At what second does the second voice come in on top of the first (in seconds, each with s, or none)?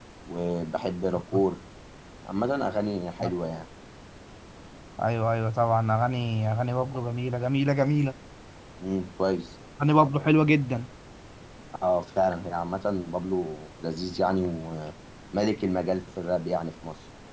none